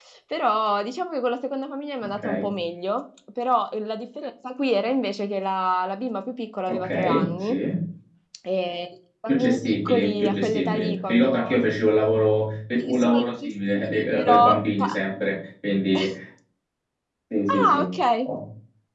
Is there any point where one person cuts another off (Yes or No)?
Yes